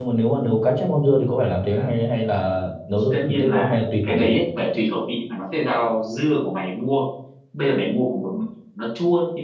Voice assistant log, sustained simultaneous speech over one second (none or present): present